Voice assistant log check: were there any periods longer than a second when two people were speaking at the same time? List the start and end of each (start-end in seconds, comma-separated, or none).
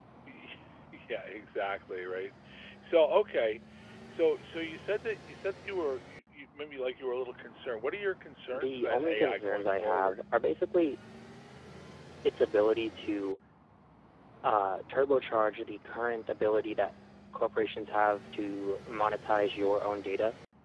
8.5-10.2